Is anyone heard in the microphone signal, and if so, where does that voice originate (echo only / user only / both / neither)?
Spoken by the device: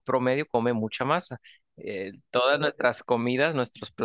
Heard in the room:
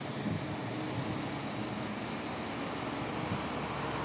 neither